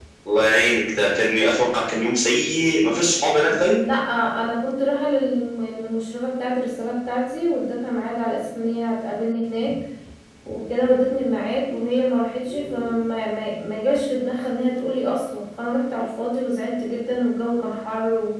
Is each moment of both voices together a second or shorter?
Yes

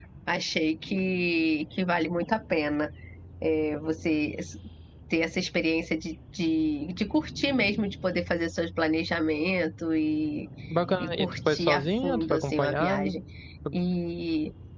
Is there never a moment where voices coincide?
No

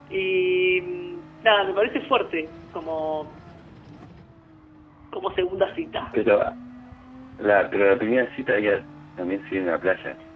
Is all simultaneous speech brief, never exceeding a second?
Yes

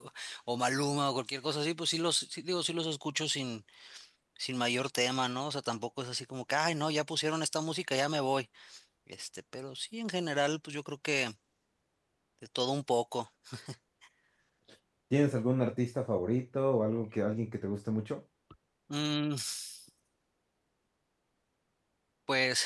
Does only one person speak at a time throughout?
Yes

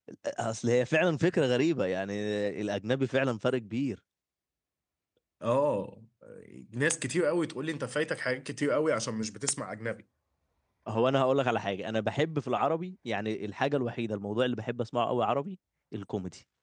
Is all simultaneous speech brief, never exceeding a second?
Yes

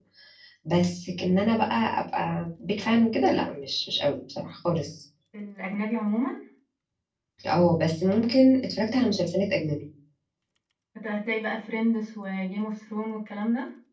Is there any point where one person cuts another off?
No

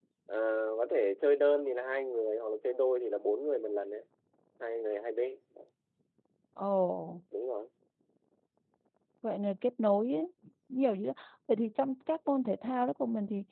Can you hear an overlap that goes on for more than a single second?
No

